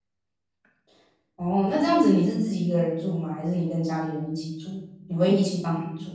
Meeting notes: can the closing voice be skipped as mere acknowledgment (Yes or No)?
No